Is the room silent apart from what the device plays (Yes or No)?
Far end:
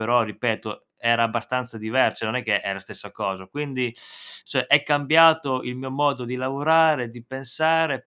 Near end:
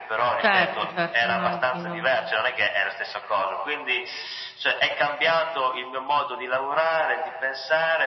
No